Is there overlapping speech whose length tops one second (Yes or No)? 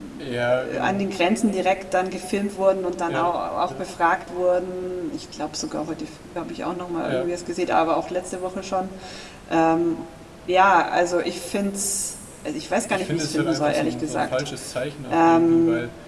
Yes